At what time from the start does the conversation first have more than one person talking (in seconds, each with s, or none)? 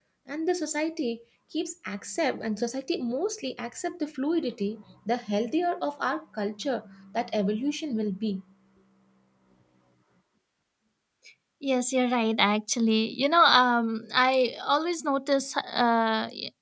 none